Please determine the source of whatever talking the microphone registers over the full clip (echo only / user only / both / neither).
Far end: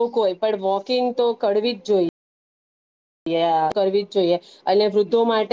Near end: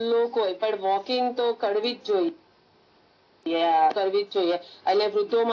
echo only